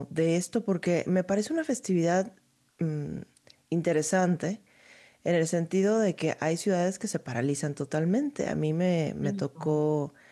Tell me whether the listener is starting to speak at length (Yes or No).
No